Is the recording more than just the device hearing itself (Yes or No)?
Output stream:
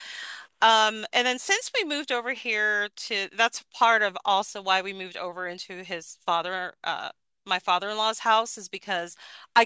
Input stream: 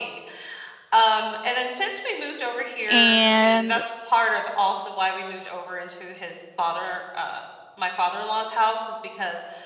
Yes